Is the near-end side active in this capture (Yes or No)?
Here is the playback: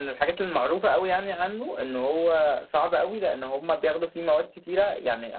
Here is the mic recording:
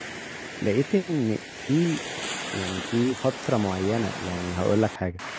Yes